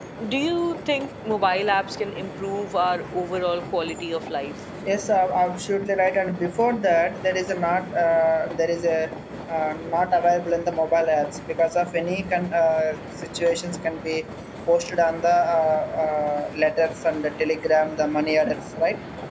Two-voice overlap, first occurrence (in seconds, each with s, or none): none